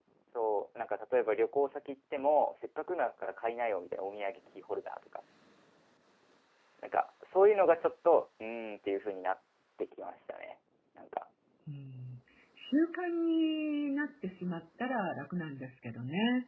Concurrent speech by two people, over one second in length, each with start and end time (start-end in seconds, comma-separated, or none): none